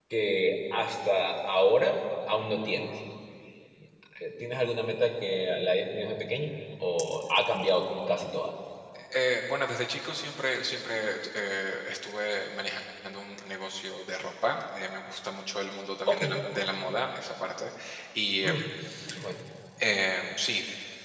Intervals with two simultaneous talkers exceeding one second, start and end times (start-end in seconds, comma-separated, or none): none